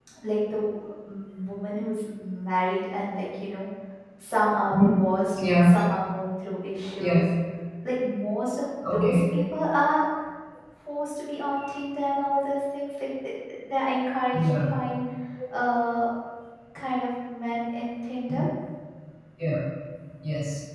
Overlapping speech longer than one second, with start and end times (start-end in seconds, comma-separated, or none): none